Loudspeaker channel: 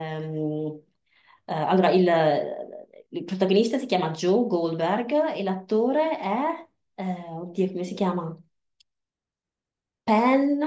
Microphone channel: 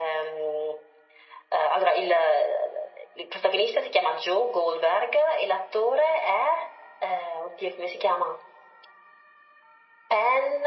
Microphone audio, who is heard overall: echo only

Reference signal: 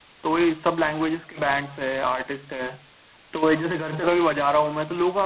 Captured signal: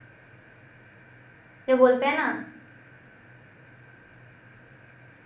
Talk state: user only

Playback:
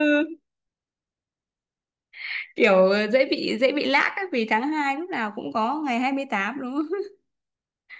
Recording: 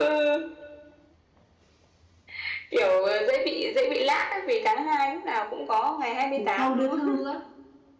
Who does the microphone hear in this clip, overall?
both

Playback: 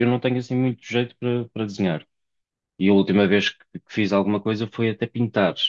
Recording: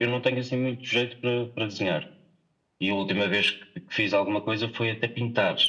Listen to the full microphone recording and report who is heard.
echo only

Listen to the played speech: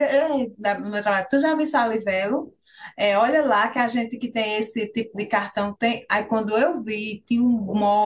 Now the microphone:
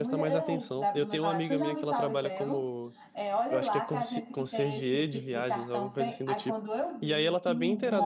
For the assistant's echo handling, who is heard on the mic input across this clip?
both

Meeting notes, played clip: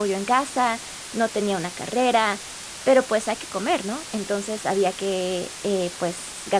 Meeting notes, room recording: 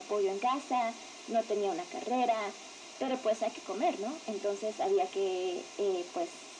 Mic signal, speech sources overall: echo only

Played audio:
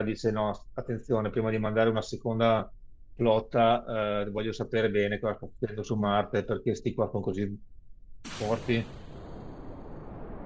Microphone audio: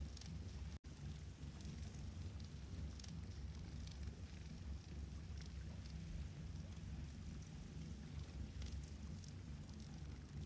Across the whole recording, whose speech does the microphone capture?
neither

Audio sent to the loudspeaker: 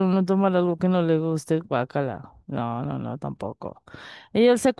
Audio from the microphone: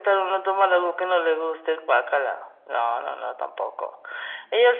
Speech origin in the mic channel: echo only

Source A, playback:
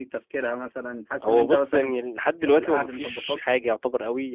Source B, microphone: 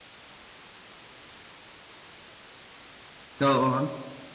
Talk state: user only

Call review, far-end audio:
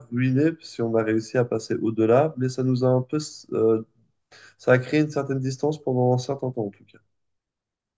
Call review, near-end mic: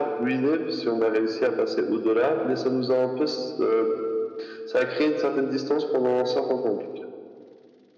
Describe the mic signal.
echo only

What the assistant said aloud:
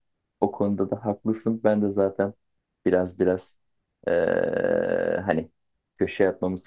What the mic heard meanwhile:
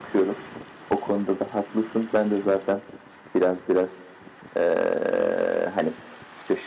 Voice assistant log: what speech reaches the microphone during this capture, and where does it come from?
echo only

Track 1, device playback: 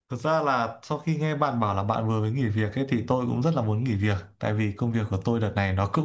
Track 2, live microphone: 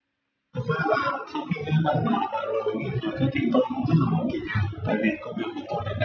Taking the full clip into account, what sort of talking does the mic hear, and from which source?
echo only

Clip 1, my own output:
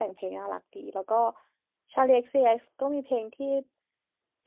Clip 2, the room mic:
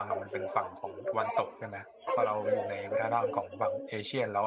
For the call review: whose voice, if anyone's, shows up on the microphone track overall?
both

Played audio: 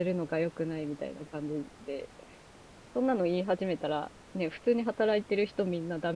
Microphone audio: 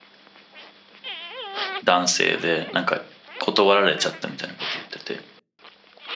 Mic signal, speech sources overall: user only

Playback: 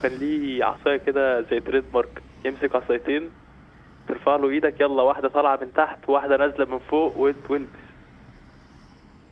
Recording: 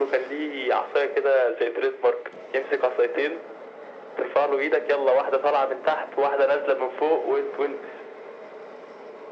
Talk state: echo only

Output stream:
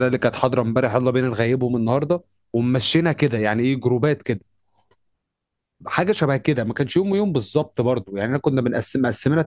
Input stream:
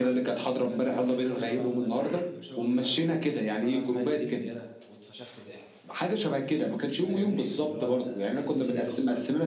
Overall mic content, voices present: both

